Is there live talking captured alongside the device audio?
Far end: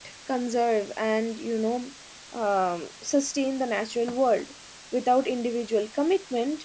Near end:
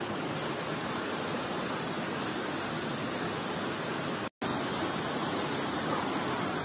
No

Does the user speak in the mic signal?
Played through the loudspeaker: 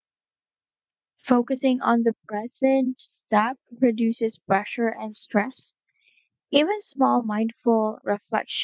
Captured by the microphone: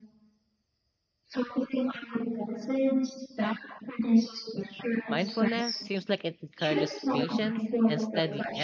Yes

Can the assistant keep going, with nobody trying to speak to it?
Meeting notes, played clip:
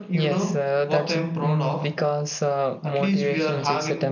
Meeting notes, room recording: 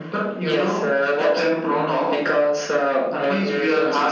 Yes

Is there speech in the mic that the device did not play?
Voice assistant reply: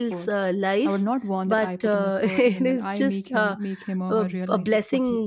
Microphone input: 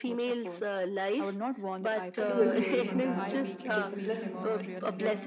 Yes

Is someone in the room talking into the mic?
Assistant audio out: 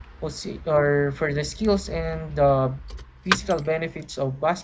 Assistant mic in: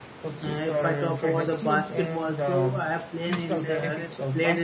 Yes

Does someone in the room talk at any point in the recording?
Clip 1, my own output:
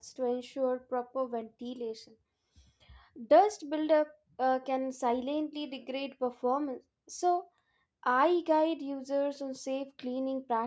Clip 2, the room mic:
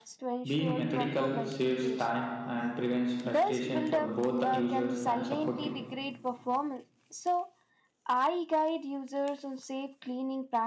Yes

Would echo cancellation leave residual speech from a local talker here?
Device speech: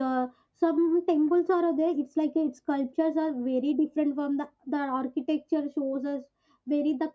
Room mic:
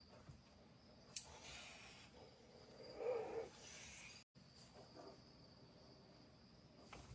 No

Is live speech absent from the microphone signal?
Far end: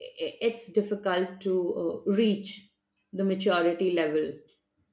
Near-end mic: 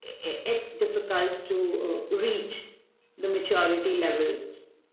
Yes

